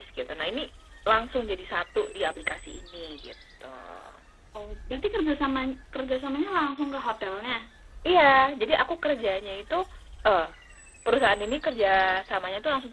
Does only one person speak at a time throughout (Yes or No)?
Yes